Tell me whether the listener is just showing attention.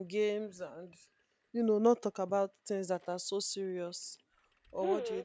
No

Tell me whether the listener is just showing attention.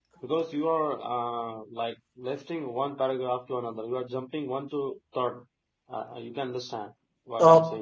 No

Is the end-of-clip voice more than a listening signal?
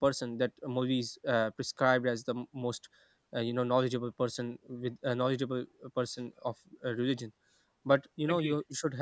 No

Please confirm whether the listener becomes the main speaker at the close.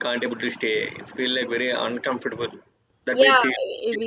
Yes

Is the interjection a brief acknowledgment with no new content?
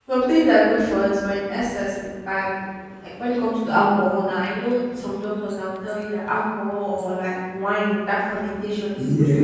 Yes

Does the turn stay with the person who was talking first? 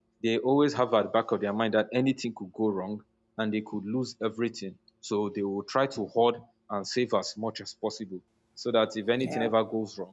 Yes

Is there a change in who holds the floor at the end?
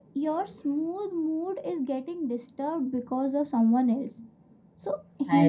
No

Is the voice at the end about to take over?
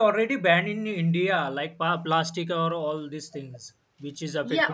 Yes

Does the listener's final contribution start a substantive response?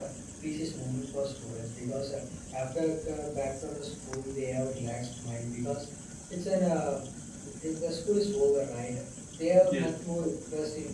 No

